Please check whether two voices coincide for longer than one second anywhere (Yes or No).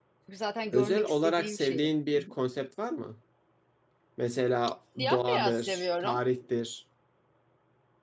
Yes